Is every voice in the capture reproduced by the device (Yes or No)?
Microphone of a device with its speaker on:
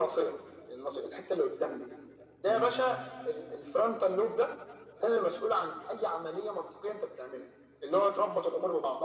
No